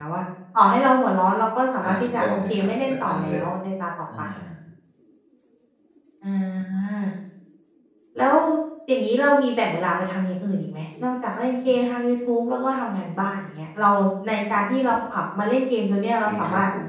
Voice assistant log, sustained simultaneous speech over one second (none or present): present